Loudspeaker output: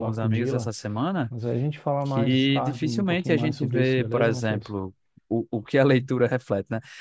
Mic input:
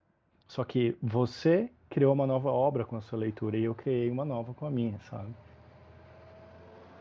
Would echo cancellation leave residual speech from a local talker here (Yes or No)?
Yes